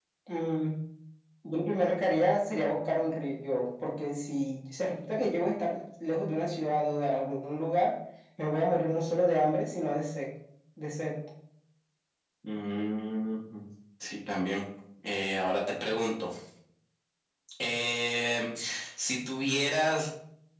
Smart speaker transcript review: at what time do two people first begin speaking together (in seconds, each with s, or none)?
none